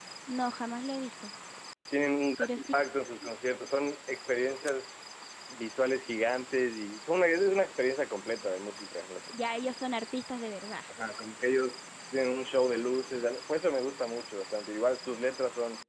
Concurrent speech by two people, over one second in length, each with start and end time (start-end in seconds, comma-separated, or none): none